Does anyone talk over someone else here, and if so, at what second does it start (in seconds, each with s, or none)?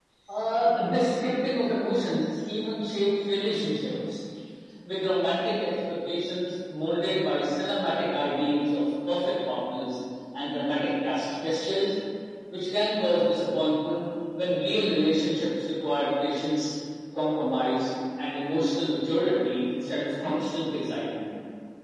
none